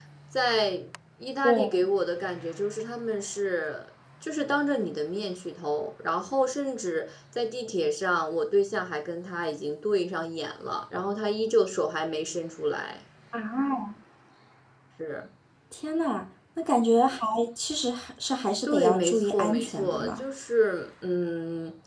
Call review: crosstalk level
present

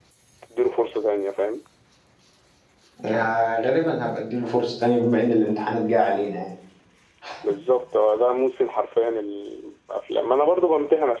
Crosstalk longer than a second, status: none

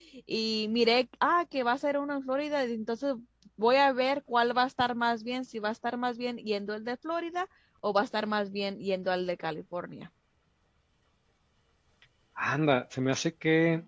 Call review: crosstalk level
none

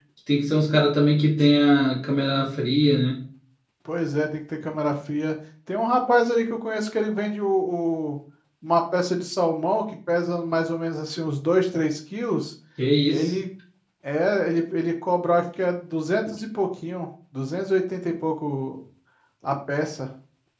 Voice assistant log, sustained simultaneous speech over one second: none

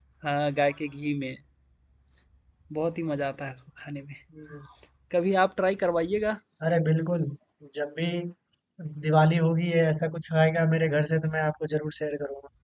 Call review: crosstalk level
none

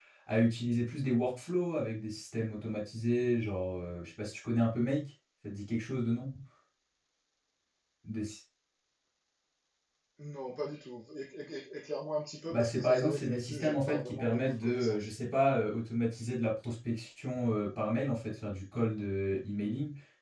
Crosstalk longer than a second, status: present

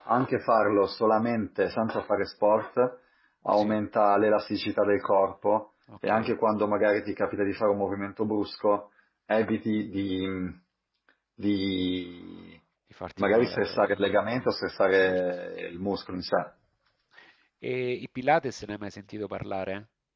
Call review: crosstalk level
present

